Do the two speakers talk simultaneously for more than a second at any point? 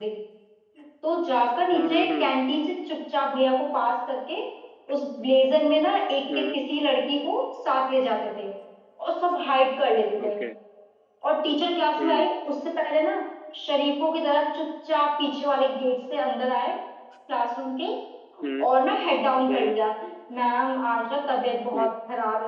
No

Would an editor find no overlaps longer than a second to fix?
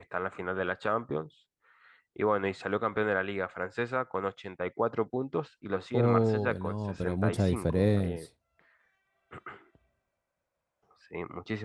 No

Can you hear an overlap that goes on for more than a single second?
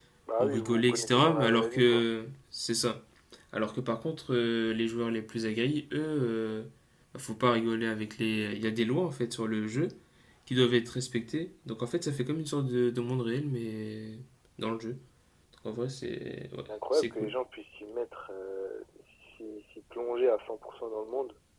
Yes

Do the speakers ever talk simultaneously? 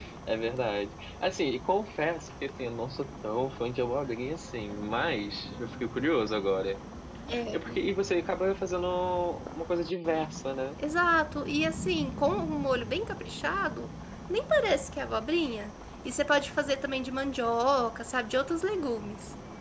No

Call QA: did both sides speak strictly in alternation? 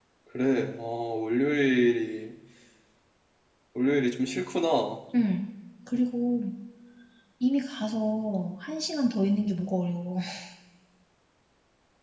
Yes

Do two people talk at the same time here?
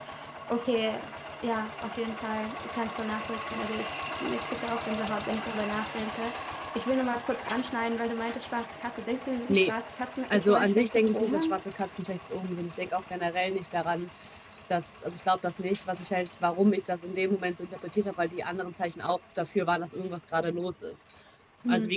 Yes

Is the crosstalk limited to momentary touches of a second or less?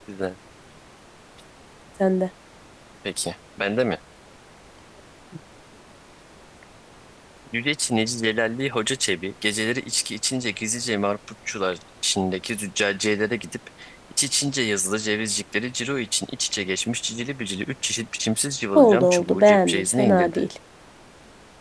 No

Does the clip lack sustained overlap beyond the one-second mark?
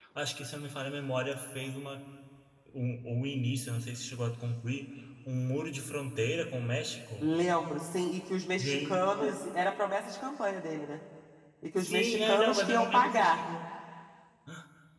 No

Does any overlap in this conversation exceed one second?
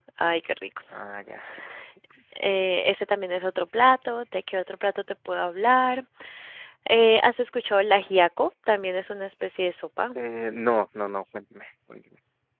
No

